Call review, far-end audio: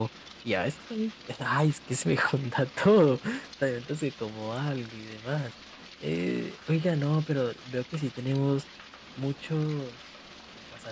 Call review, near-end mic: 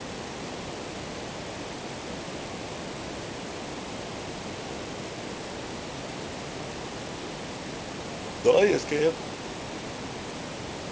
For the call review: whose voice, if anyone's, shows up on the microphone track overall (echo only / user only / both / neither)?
user only